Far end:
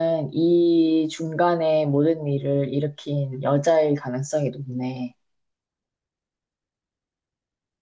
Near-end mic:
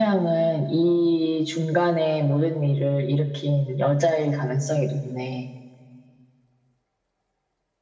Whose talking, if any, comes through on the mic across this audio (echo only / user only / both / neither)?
echo only